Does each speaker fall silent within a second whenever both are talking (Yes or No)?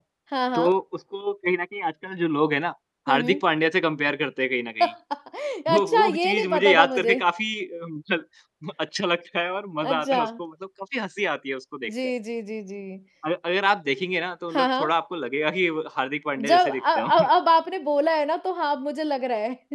No